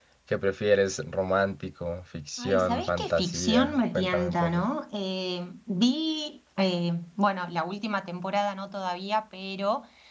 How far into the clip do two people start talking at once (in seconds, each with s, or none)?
2.4 s